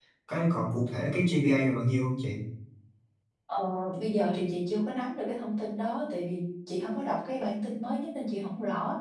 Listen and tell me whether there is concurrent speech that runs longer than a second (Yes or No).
No